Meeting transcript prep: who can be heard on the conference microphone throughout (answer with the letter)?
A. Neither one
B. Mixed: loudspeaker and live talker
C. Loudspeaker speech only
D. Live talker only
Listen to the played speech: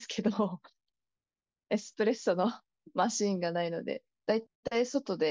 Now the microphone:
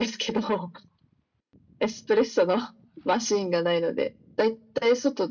C